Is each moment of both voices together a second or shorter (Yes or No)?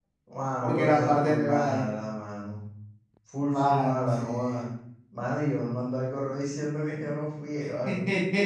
No